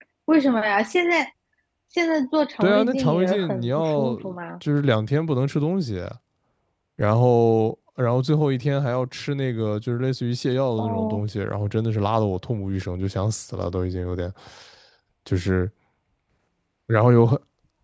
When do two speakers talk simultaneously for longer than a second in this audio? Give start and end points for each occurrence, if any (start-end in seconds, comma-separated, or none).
2.6-4.1